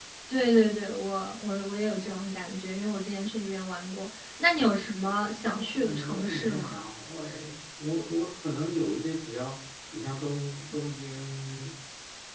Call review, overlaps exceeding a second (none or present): present